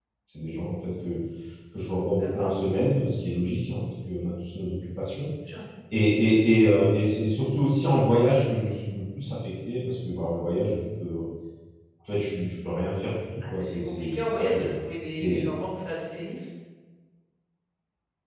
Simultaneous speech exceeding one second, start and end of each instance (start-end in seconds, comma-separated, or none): 13.5-14.7